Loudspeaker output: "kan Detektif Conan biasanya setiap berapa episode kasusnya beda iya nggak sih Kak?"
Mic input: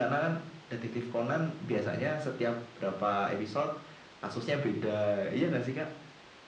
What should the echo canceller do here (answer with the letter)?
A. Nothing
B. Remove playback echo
B